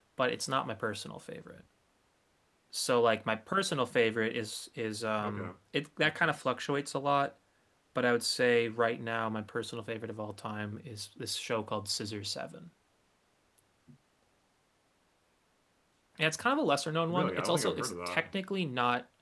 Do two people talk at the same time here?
Yes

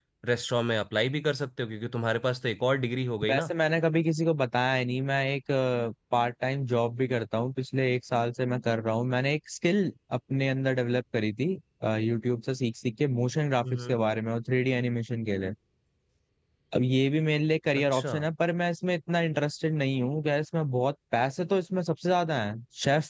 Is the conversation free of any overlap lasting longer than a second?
Yes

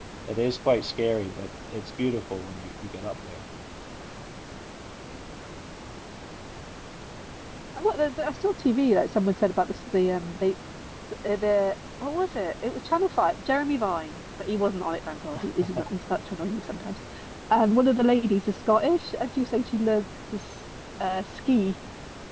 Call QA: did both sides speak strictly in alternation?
Yes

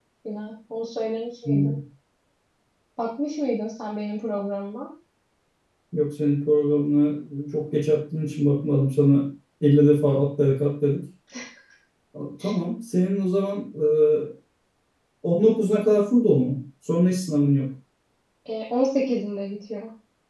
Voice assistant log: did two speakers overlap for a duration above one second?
No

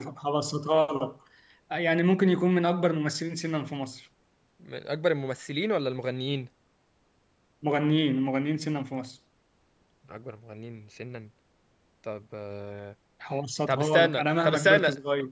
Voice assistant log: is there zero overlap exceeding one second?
No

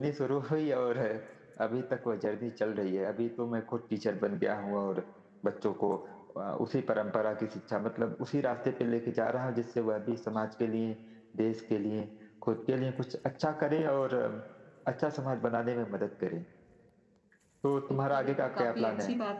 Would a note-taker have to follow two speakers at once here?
Yes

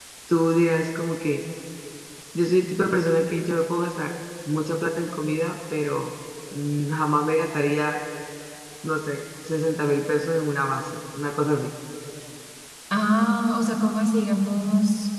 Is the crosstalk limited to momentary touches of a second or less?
Yes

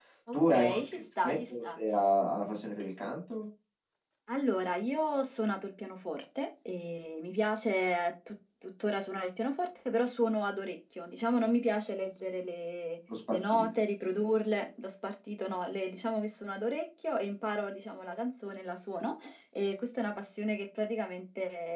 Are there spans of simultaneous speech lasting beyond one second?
Yes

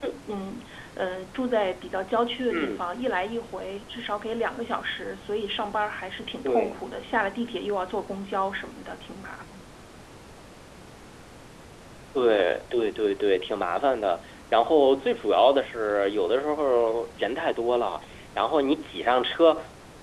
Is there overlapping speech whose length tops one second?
No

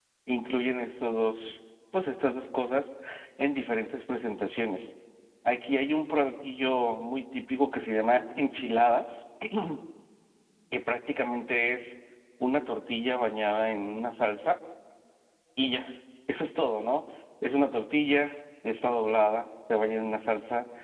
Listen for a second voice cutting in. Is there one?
No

